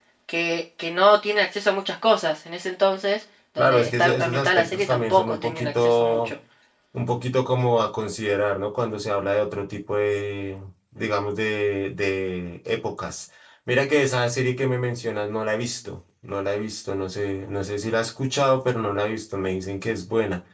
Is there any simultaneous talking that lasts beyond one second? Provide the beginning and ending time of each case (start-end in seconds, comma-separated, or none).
3.6-6.3